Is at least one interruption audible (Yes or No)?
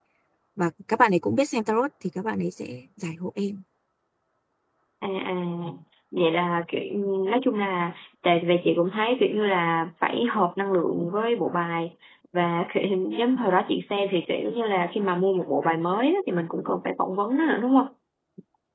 No